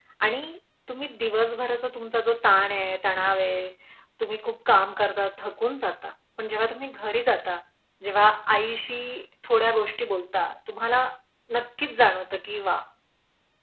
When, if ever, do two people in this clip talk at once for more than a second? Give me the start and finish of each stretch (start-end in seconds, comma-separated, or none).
none